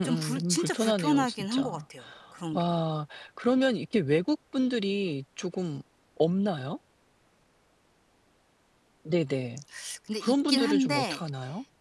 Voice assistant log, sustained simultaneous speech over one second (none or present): present